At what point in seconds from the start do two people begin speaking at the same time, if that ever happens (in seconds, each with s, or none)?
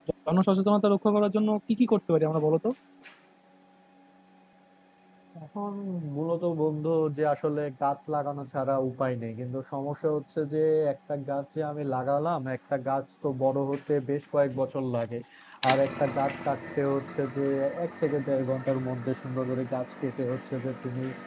none